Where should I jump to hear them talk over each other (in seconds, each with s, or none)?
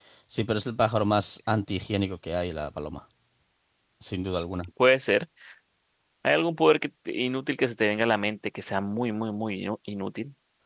none